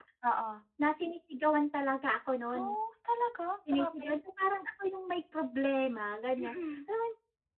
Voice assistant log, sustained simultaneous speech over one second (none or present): none